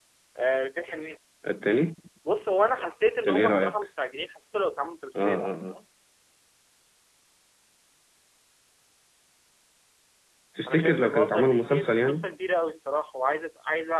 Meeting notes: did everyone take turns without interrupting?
No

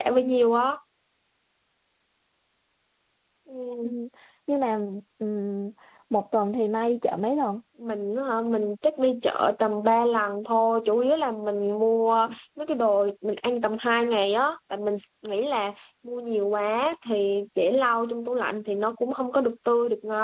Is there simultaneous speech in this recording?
No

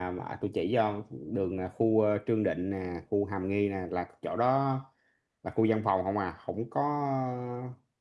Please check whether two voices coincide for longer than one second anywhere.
No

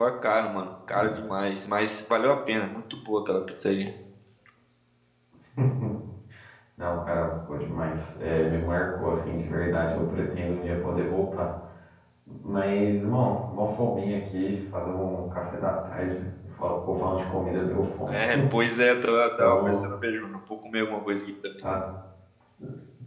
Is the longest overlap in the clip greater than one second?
No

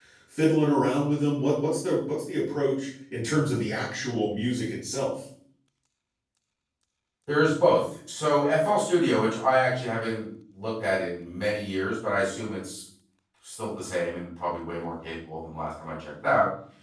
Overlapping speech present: No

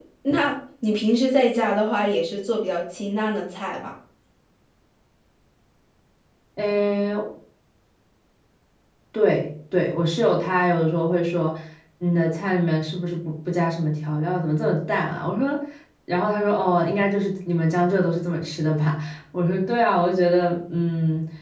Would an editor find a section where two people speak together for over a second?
No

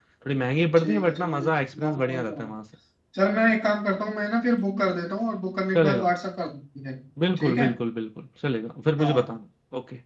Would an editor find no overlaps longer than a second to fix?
No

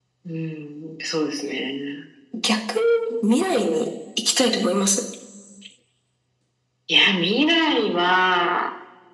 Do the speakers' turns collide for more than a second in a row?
No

